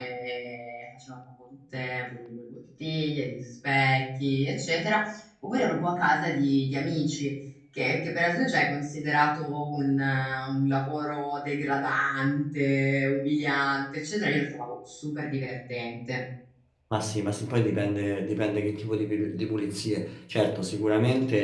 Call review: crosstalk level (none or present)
none